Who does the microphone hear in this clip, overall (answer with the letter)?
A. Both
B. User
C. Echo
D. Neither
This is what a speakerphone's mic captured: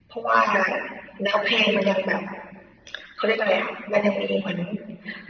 C